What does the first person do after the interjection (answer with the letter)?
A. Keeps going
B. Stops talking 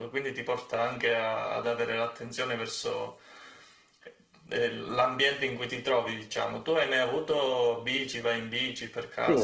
B